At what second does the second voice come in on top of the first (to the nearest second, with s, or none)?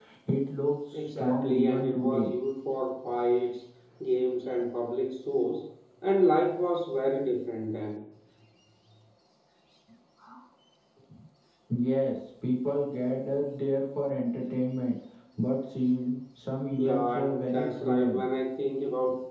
1 s